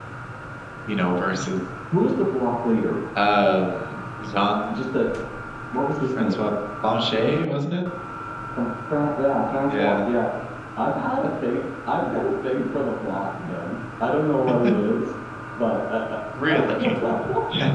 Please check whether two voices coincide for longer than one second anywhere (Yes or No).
No